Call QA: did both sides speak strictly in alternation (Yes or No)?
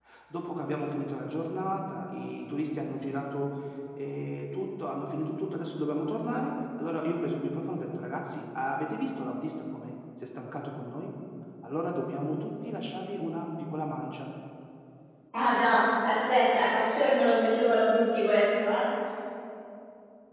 Yes